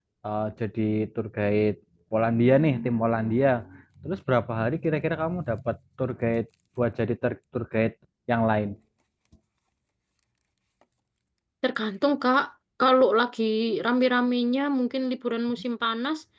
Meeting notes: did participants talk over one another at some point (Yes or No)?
No